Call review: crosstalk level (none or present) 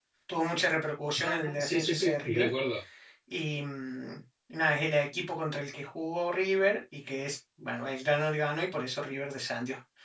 present